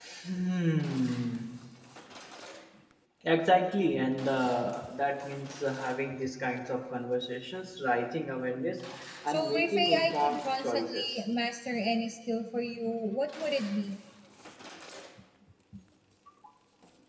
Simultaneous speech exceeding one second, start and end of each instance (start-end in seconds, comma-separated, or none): 9.3-11.1